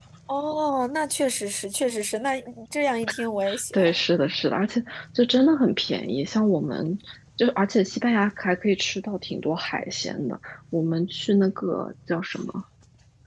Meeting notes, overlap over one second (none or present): none